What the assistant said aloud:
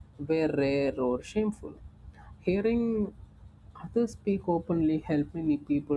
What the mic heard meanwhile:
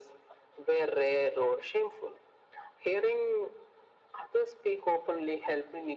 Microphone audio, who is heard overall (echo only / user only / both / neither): echo only